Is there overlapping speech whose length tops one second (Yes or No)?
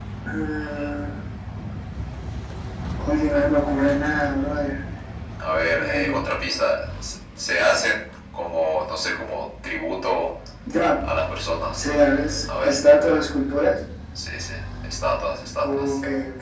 No